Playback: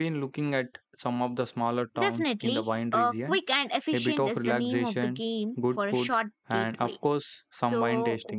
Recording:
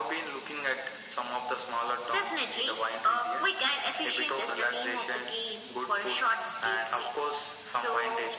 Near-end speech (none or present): none